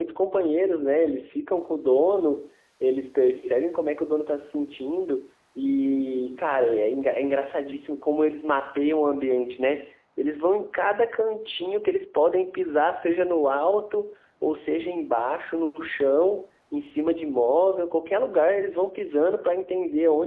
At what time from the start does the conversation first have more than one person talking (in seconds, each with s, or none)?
none